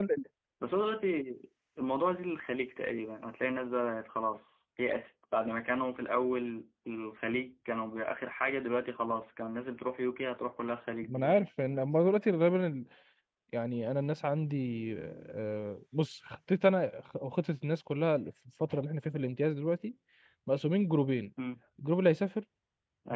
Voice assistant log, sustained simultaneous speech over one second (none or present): none